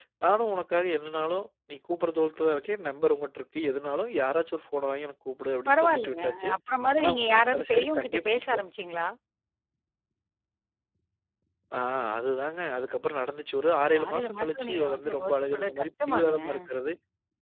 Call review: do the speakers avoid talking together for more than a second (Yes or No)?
No